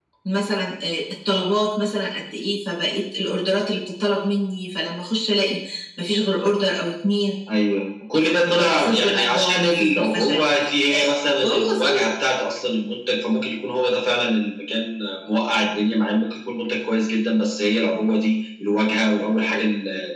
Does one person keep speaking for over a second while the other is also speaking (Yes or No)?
Yes